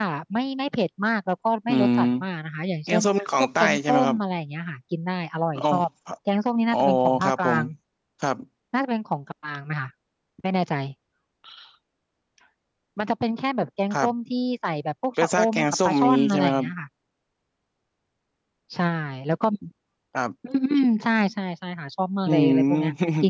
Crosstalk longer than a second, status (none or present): present